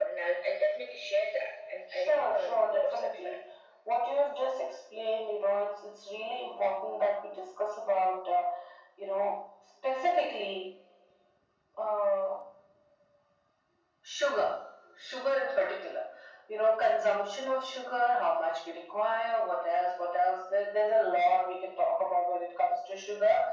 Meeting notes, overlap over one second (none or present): present